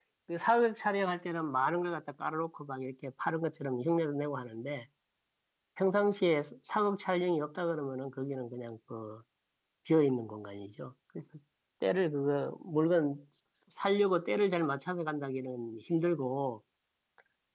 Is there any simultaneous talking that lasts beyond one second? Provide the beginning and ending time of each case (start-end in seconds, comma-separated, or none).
none